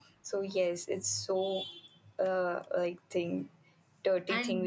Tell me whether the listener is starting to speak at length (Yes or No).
Yes